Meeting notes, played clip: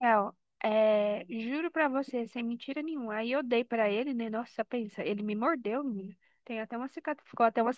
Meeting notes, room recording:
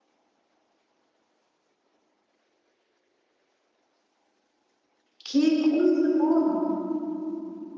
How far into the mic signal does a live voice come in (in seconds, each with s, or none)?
5.2 s